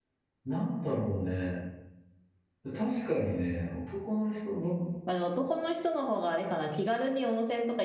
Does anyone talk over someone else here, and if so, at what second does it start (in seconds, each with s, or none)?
none